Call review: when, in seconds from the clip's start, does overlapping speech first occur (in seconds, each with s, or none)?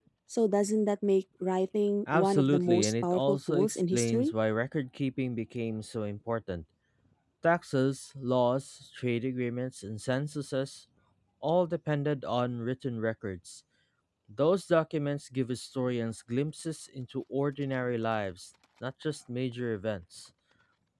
2.1 s